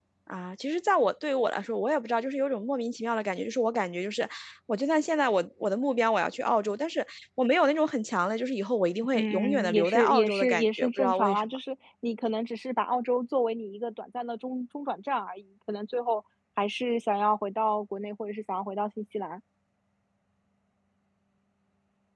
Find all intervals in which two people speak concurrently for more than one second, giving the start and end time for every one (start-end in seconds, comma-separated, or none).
9.1-11.4